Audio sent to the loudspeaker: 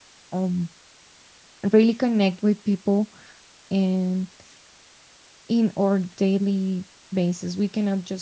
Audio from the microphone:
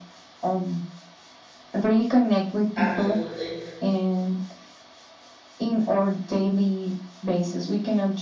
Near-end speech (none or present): present